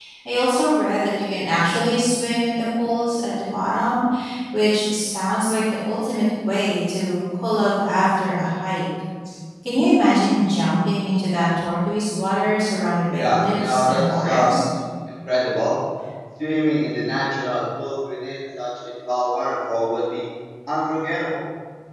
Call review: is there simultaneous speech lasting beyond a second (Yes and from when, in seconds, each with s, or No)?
Yes, from 13.1 s